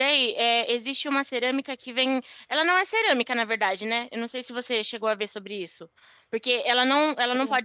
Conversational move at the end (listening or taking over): listening